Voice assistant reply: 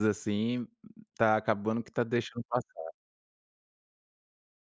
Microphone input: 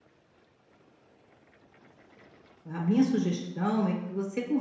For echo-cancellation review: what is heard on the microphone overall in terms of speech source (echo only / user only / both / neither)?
user only